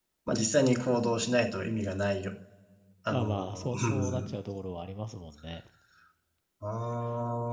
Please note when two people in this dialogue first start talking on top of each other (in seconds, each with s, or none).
3.1 s